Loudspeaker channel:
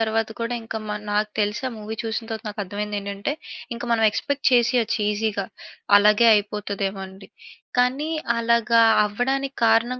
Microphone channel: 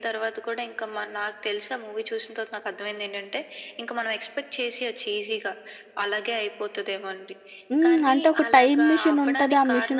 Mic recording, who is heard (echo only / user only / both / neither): both